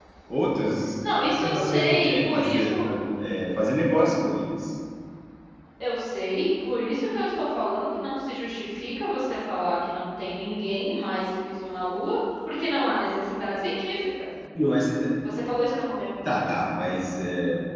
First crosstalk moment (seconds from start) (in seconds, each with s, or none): 1.3 s